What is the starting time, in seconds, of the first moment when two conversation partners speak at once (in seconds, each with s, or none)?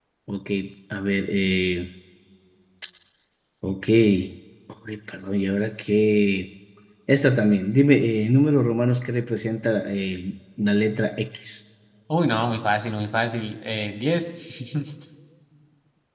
none